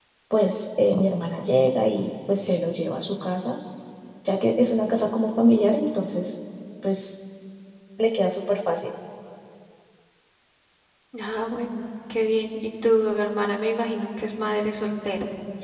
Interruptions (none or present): none